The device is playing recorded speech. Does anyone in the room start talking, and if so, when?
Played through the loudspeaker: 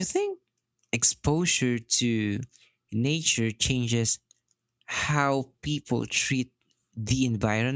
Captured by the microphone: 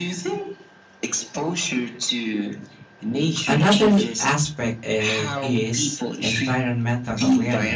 3.4 s

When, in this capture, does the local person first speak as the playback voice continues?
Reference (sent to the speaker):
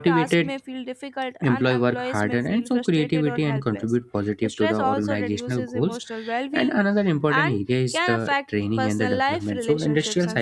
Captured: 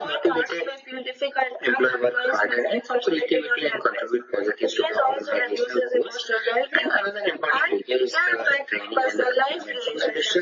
none

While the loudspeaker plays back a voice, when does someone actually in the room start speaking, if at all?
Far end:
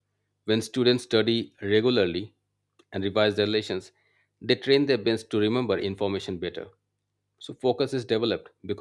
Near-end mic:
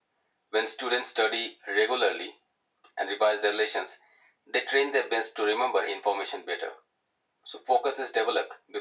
none

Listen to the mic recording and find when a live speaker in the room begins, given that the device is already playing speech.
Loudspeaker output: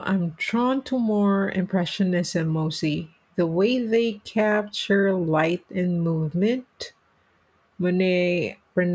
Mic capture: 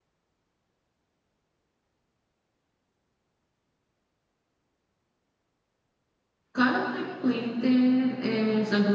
6.5 s

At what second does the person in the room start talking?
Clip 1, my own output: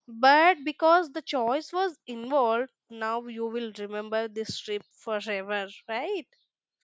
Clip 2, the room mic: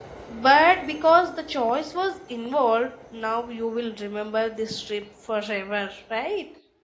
none

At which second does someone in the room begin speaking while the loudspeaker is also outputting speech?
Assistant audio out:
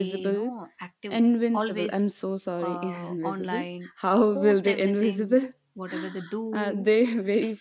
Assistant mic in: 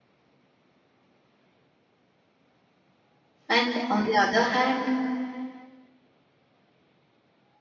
3.5 s

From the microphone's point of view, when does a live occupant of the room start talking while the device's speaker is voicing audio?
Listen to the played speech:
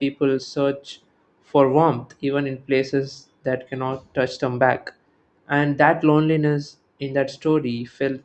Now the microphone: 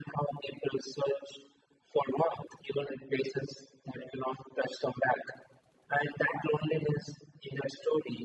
none

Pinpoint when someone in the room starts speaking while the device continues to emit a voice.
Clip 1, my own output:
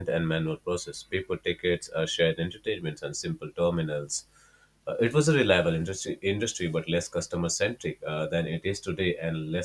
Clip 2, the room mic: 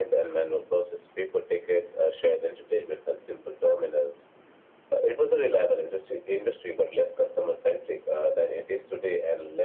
none

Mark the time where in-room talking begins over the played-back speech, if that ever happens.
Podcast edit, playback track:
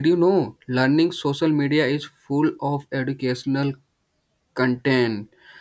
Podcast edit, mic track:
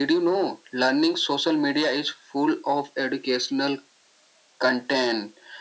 none

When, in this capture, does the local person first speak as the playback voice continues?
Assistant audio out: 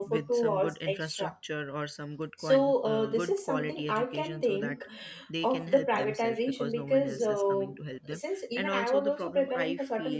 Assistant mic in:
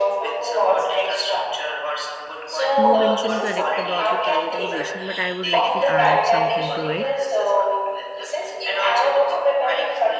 2.7 s

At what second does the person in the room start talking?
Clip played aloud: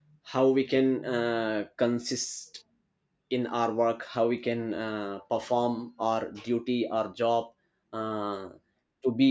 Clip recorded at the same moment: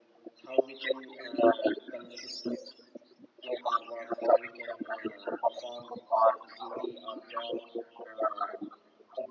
none

